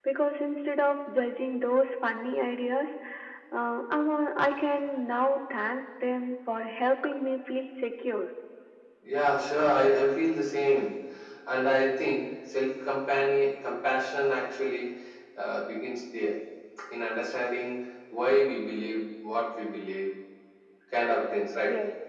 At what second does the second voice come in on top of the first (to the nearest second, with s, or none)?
none